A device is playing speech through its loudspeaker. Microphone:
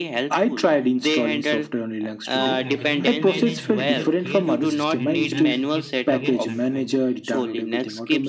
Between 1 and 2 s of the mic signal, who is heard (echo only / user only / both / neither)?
echo only